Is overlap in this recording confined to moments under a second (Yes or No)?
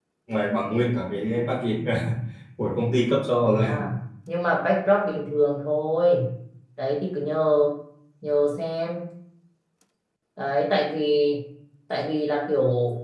Yes